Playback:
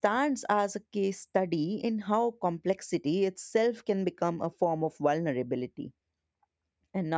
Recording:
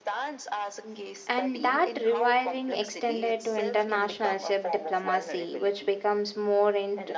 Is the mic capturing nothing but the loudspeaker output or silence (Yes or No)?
No